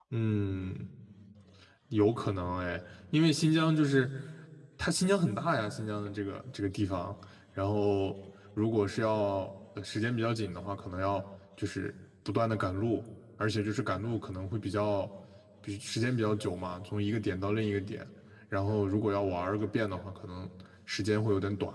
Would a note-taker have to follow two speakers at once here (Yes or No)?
No